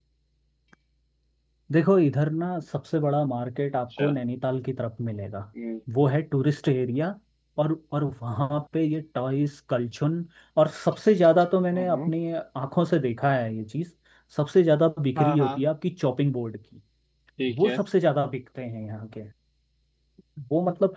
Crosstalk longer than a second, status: none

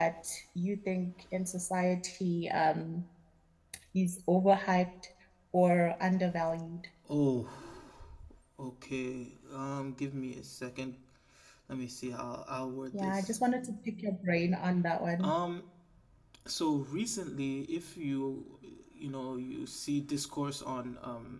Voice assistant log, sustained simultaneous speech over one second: none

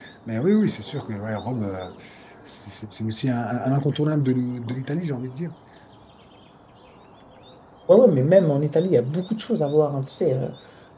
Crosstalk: none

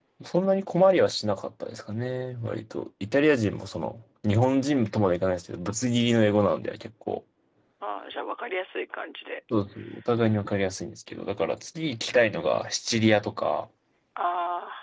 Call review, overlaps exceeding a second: none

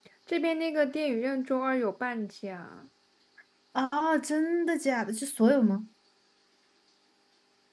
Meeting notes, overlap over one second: none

